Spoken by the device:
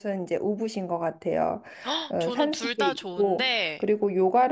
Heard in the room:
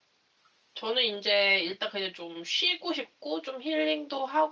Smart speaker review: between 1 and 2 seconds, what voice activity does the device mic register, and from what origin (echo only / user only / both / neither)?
user only